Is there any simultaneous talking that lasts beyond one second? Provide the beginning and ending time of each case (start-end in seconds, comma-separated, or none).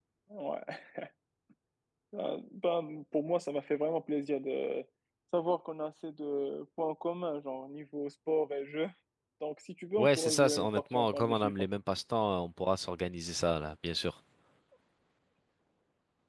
10.0-11.5